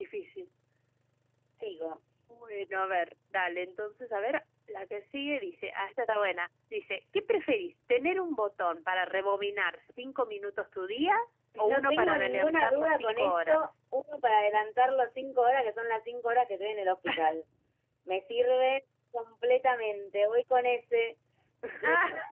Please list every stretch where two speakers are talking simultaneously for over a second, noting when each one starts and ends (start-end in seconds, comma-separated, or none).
11.7-13.7